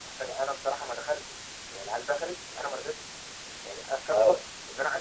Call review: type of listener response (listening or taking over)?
listening